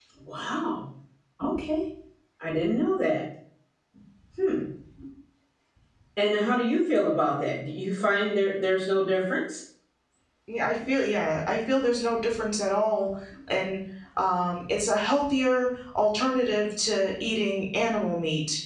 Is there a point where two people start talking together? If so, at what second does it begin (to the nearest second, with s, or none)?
none